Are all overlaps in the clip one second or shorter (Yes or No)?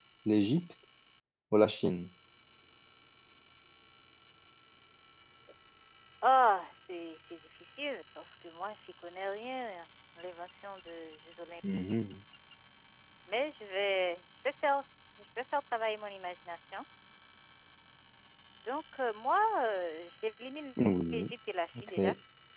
Yes